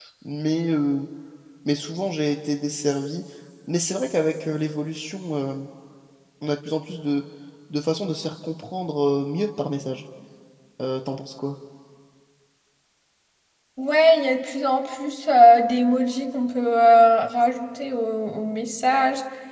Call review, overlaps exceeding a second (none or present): none